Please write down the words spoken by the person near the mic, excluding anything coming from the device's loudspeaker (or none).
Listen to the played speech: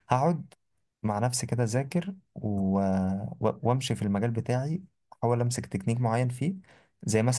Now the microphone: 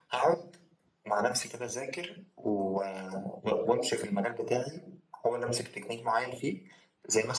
none